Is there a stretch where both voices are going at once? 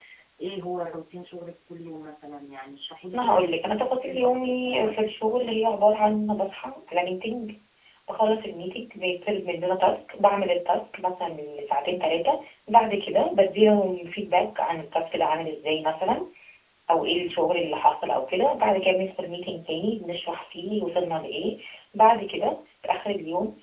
Yes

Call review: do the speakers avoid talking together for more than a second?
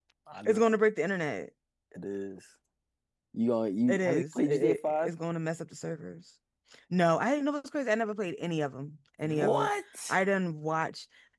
No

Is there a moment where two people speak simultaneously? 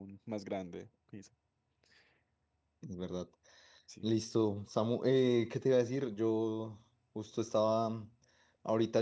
No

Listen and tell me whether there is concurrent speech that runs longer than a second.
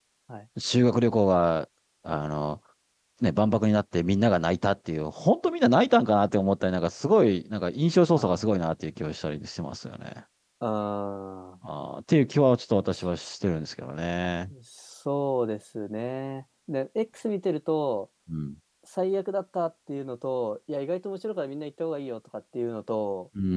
No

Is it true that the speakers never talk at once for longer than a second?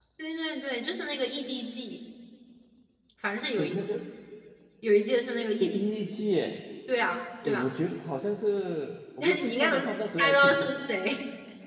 No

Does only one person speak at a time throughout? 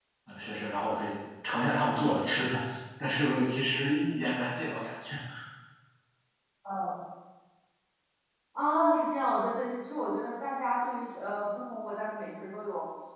Yes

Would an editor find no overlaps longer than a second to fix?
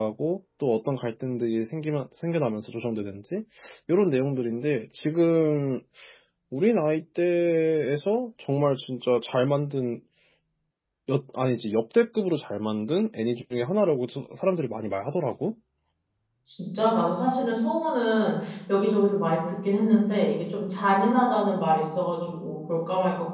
Yes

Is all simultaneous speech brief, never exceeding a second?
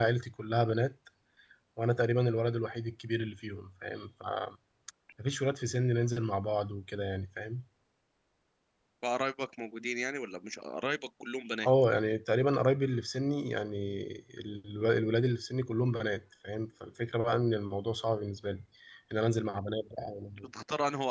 Yes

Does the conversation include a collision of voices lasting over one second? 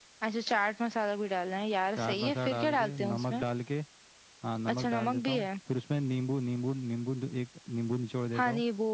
Yes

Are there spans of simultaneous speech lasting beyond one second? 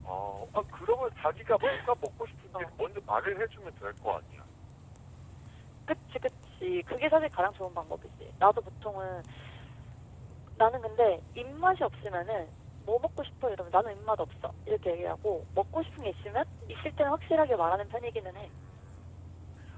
No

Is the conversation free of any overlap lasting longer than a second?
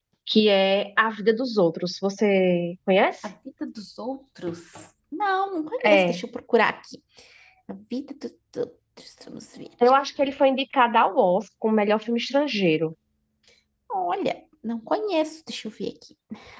Yes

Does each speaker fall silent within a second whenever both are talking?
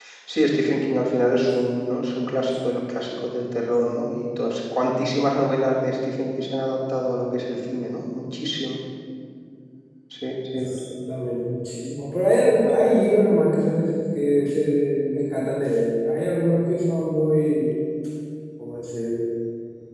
Yes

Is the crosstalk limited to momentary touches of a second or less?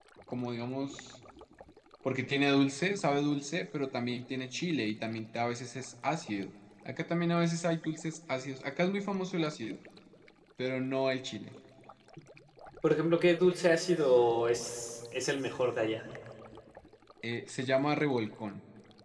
Yes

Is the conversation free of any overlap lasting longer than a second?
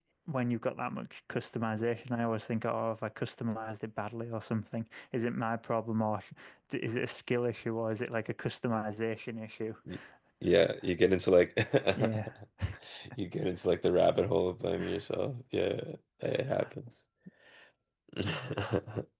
Yes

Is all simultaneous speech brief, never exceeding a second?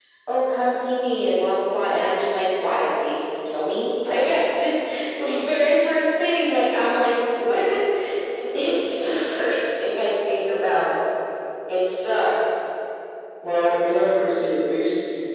Yes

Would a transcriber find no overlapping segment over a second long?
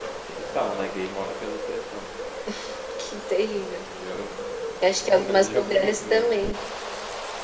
No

